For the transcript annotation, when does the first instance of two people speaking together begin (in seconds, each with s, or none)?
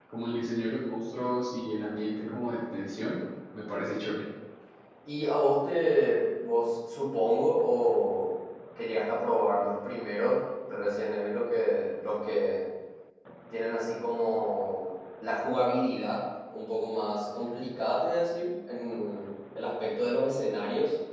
none